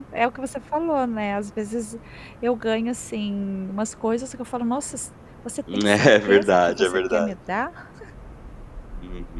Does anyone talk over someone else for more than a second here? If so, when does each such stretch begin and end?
5.8-7.3

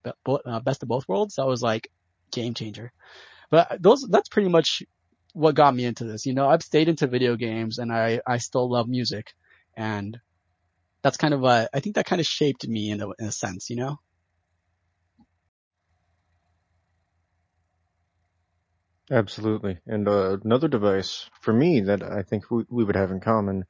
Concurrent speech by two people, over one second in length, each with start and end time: none

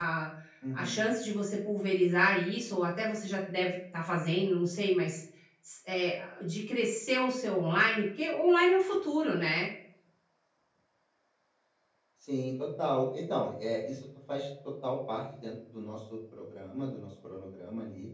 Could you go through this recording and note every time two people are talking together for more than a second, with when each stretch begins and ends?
none

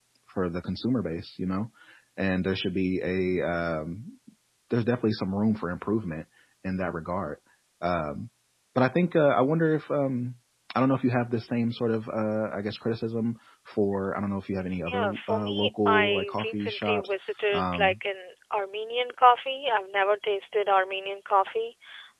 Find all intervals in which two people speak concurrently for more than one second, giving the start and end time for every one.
14.8-17.1

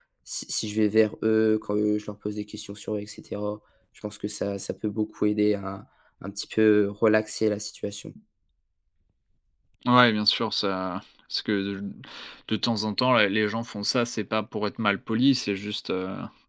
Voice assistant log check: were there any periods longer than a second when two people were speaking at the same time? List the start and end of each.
none

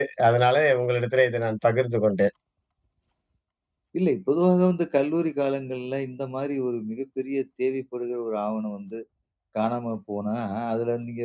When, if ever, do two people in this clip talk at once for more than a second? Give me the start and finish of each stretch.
none

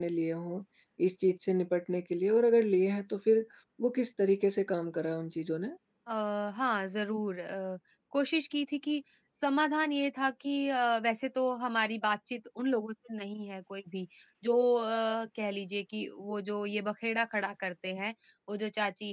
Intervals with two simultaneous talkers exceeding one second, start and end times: none

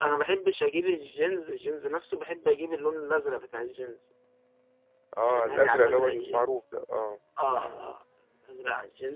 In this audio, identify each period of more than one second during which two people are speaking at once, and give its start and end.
5.3-6.5

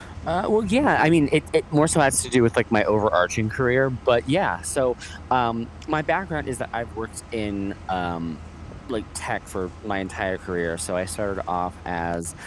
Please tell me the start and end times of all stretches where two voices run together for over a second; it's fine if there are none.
none

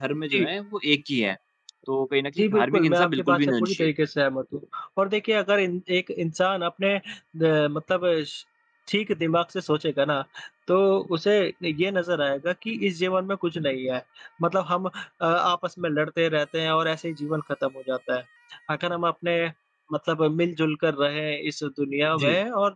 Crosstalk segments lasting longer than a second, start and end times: 2.4-3.9

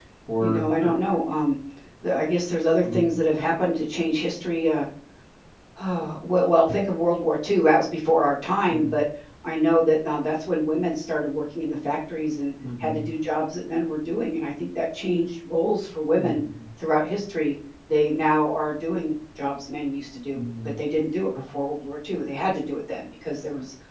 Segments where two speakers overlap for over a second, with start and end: none

